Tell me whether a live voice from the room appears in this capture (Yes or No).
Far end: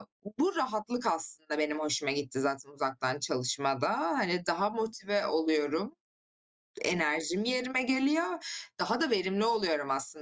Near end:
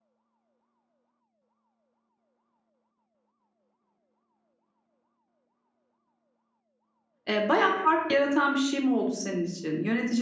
Yes